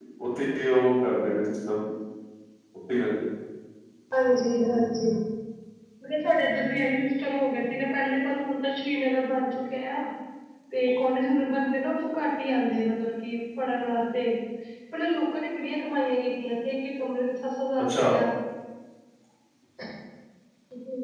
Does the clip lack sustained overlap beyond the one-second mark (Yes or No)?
Yes